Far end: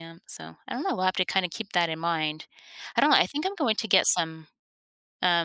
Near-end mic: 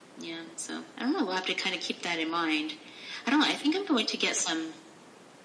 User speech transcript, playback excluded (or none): none